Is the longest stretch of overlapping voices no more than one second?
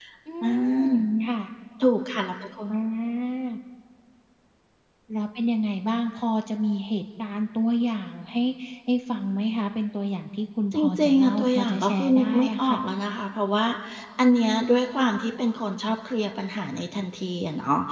No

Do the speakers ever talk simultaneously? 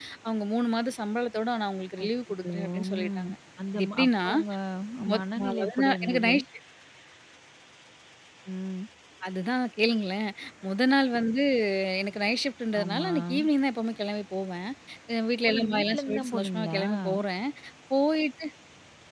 Yes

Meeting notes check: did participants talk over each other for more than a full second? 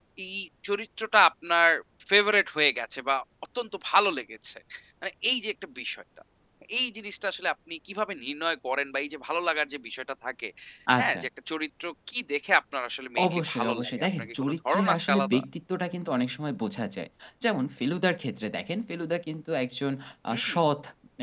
Yes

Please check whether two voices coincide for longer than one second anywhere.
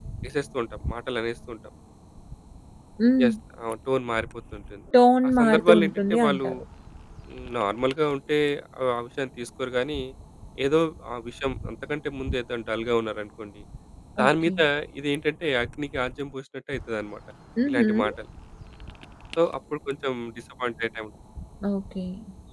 Yes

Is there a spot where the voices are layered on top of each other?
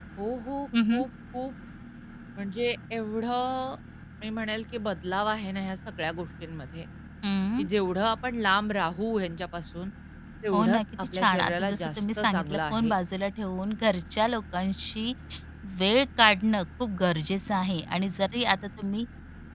Yes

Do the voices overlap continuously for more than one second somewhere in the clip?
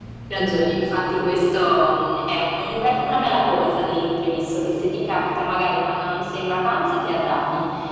No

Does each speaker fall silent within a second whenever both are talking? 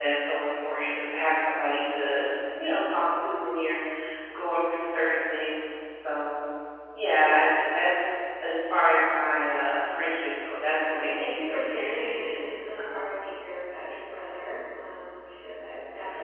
No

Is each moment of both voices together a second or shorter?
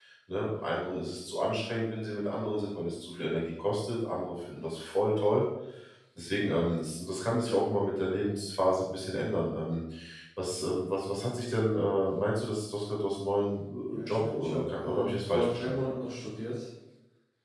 No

